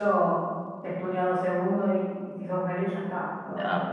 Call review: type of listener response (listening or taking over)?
taking over